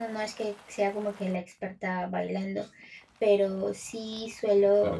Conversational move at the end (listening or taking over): listening